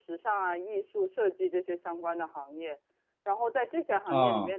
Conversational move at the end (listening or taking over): listening